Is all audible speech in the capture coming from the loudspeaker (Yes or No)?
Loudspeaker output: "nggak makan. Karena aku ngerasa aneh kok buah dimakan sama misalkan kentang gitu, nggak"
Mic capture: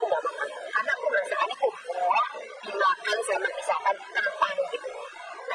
Yes